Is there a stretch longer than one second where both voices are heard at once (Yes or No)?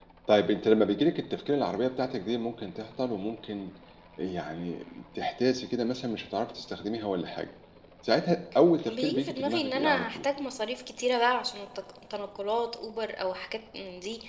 Yes